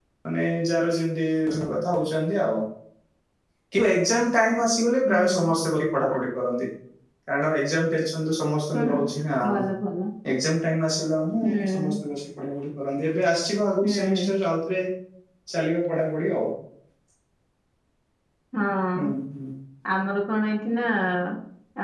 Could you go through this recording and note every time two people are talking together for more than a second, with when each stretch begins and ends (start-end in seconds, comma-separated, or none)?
none